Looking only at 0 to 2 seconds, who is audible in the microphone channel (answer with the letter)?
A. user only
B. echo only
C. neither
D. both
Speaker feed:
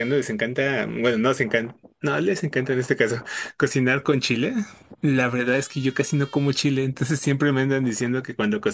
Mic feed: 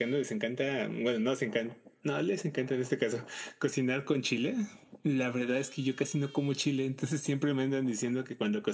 B